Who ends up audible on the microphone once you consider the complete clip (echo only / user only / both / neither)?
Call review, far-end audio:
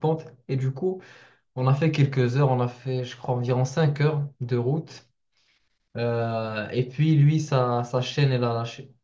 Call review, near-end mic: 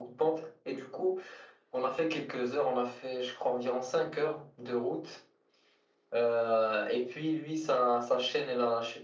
echo only